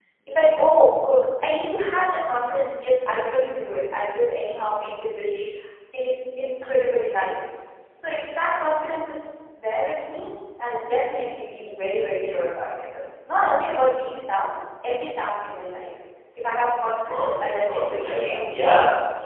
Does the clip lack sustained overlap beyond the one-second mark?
No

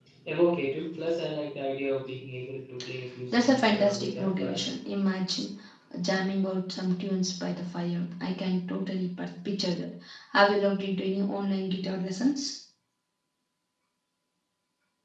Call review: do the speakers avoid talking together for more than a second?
No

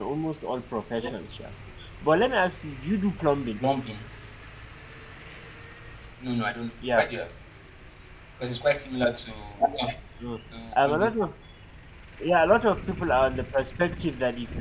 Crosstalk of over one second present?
No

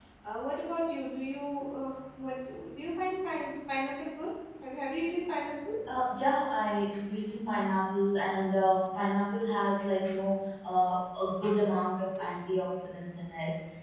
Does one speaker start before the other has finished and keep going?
No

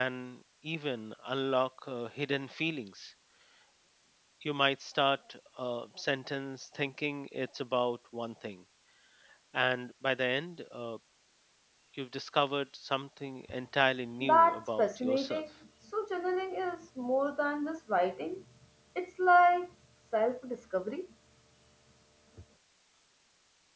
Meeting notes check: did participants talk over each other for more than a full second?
Yes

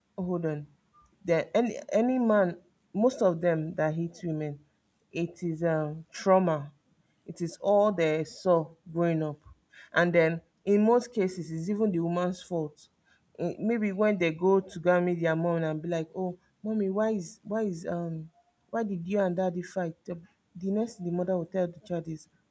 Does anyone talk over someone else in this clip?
No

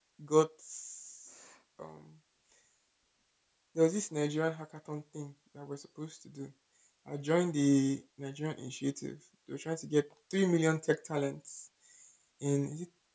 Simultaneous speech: No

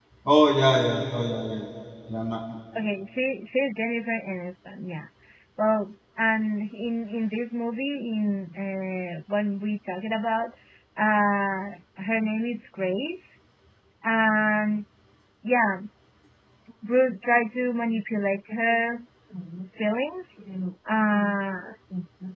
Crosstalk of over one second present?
No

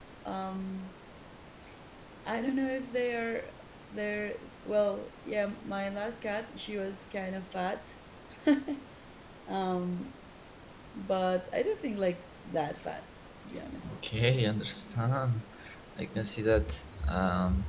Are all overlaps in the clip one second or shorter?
Yes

